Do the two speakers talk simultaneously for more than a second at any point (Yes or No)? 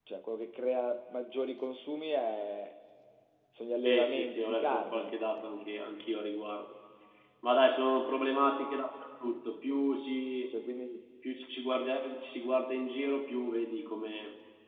Yes